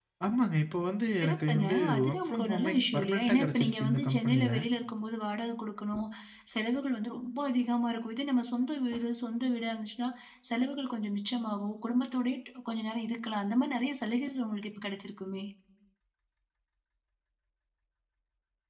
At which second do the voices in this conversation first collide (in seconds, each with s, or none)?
1.2 s